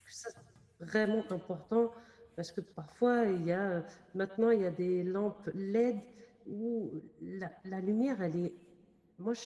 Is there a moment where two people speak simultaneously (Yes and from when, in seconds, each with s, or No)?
No